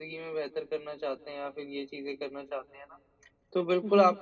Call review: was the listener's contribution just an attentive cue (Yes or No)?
Yes